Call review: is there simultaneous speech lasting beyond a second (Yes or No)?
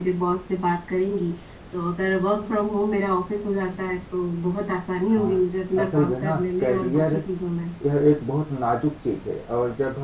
Yes